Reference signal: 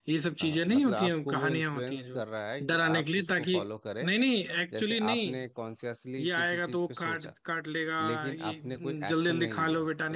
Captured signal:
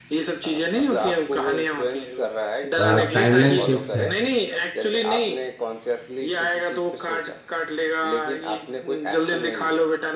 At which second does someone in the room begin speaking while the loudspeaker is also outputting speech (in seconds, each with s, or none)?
2.8 s